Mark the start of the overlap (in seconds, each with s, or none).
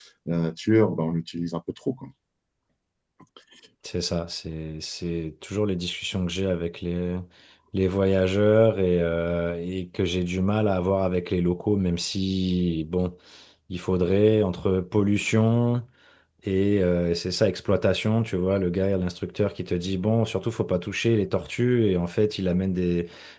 none